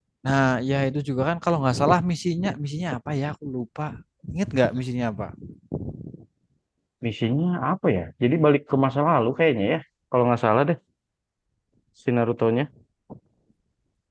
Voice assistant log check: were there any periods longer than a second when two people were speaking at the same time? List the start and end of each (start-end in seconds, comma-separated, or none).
none